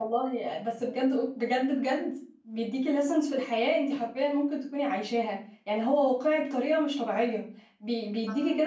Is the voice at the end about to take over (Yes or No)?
No